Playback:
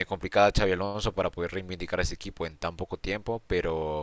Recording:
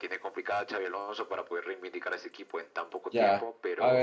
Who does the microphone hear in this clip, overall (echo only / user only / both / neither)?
both